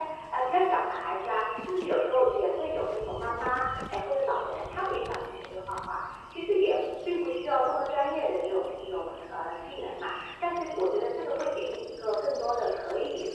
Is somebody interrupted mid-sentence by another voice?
No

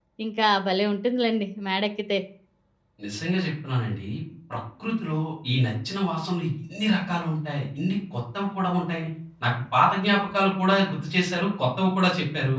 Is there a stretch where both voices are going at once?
No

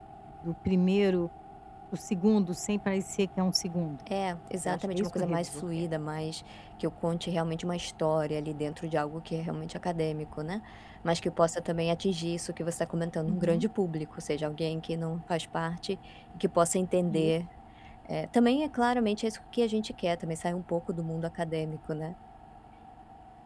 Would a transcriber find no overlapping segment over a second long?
No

